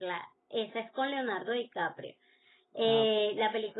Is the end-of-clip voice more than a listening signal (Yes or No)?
No